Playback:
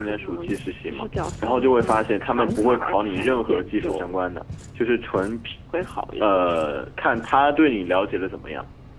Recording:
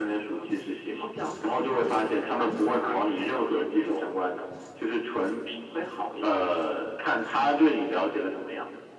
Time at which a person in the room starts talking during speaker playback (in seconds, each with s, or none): none